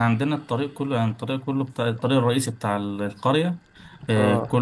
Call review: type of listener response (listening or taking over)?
listening